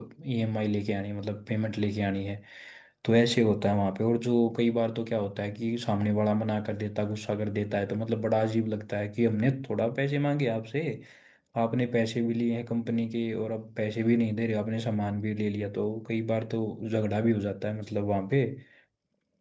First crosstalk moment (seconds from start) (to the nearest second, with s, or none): none